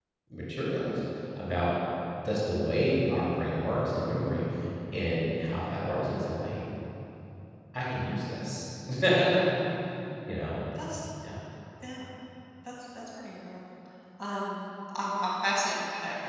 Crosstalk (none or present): none